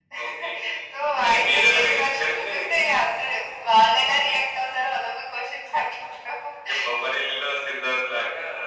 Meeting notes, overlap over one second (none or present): present